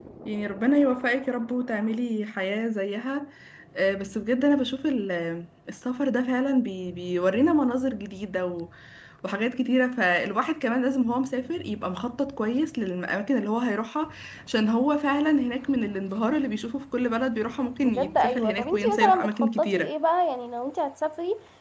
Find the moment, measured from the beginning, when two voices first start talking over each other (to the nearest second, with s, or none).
18 s